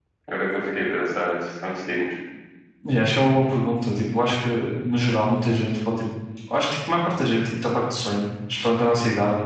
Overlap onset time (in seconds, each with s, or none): none